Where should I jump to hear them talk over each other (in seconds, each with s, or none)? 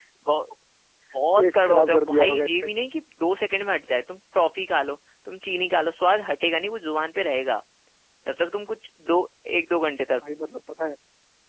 1.4 s